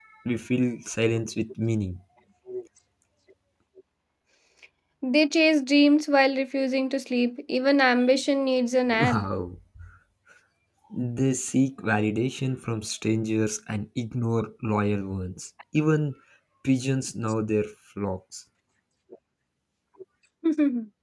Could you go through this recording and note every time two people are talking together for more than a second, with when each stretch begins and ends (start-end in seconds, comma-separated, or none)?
none